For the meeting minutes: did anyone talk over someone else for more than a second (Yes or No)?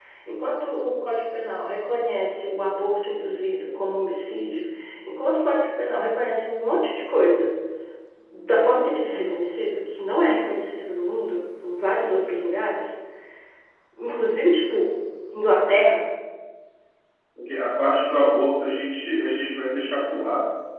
No